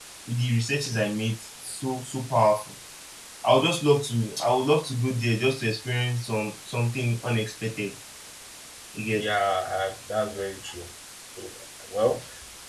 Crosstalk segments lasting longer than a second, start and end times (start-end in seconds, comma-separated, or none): none